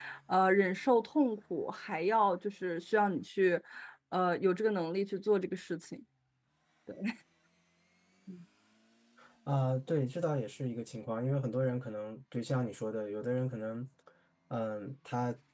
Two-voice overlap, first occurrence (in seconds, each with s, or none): none